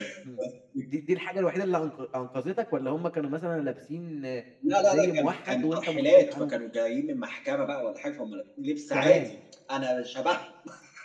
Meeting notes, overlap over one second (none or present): present